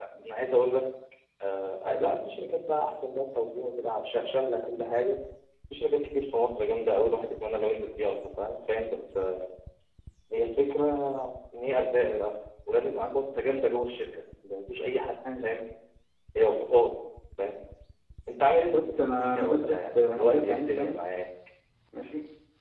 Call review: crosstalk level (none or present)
present